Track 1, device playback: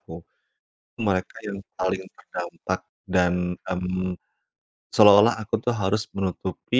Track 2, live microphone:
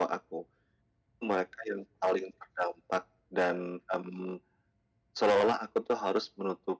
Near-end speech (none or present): none